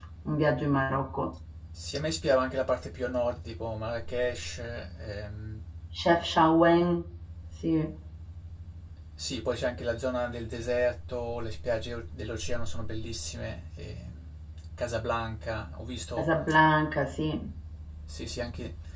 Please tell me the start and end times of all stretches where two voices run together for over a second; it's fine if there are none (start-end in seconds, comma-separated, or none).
none